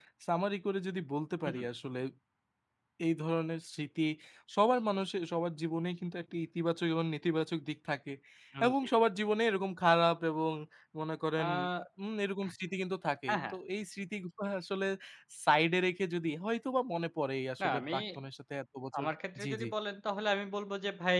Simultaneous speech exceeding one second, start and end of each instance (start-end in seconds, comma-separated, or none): none